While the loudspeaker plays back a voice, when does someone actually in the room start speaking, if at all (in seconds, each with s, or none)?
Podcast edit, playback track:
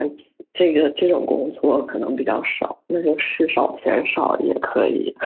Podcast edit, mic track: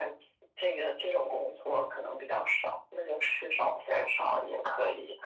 none